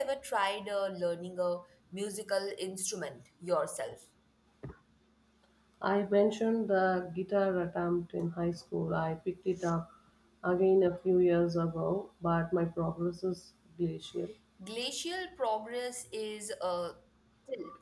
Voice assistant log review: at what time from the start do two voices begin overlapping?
none

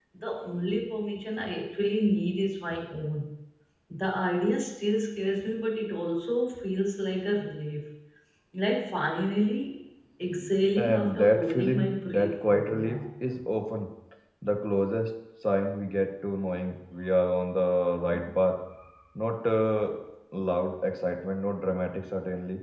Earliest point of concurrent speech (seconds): 10.8 s

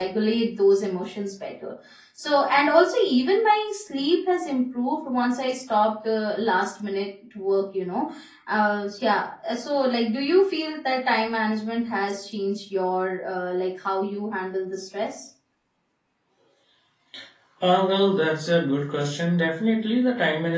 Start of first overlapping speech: none

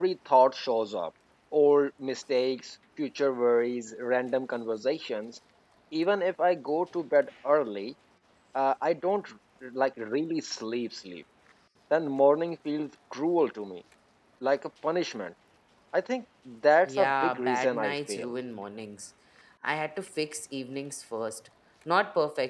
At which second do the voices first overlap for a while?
16.9 s

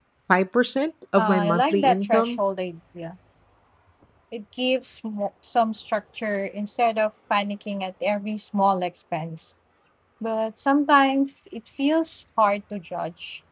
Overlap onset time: 1.2 s

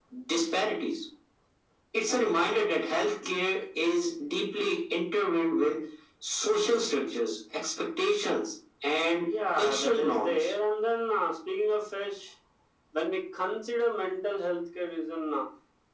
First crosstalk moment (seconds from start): 9.2 s

